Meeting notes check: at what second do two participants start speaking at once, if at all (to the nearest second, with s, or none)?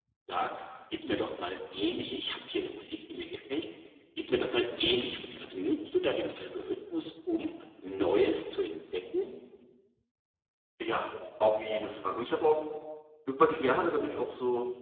none